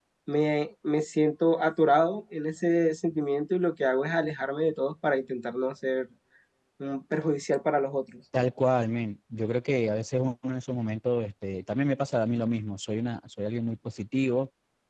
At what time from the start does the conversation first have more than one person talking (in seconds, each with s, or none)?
none